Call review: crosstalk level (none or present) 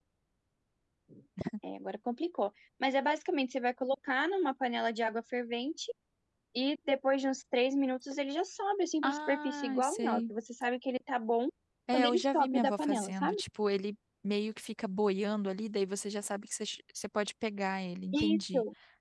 present